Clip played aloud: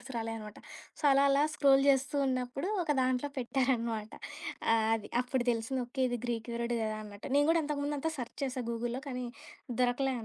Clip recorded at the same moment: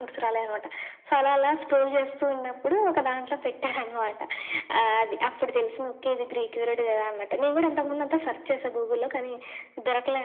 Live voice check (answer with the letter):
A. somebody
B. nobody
B